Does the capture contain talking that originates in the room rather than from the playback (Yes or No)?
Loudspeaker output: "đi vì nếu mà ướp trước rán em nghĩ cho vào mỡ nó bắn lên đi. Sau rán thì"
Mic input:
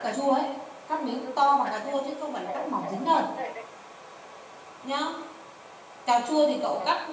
Yes